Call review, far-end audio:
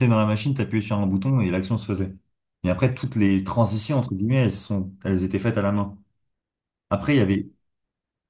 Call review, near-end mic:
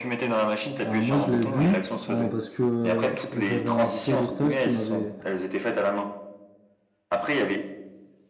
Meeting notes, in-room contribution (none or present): present